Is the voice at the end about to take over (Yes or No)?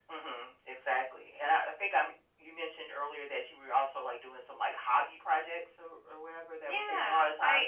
Yes